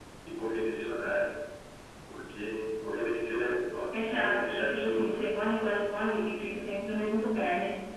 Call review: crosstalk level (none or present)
present